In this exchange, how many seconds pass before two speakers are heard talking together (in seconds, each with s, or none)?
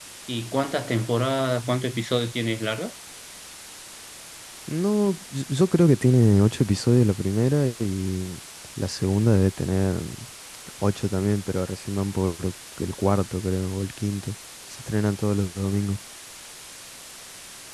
none